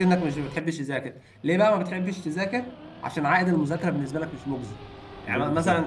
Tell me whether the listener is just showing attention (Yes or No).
Yes